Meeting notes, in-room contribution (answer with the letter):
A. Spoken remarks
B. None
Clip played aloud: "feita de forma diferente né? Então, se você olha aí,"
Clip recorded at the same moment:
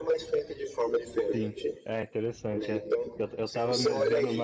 A